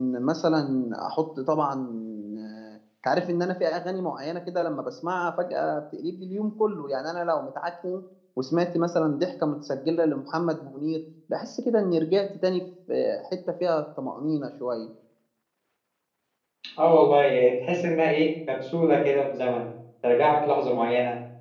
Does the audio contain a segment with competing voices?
No

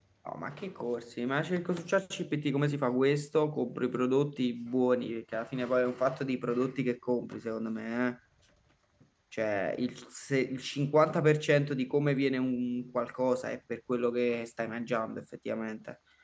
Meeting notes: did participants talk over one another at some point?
No

